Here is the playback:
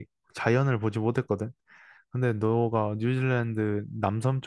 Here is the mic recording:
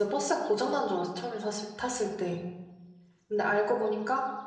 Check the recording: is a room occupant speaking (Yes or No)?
Yes